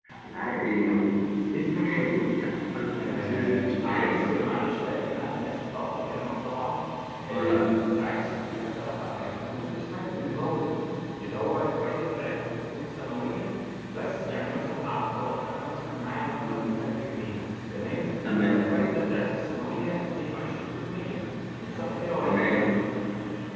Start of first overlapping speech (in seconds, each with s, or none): 2.9 s